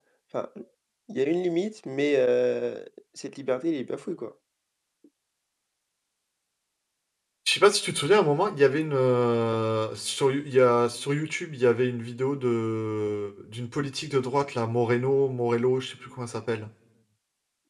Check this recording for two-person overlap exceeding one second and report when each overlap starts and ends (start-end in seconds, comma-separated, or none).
none